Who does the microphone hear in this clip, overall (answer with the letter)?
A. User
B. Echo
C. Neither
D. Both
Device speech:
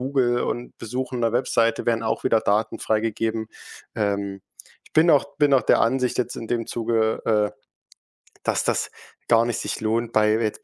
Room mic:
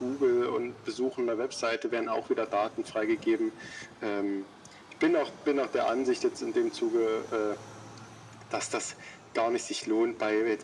B